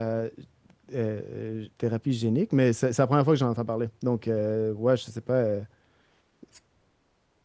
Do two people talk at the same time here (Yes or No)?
No